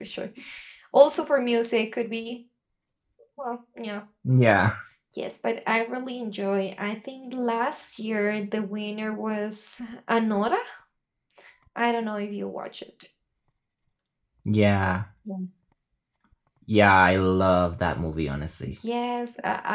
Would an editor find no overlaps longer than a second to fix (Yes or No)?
Yes